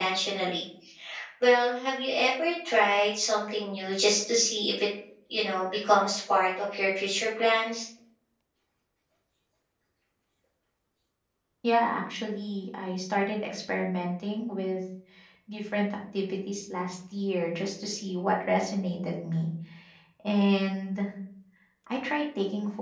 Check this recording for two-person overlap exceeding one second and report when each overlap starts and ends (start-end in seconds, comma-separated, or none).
none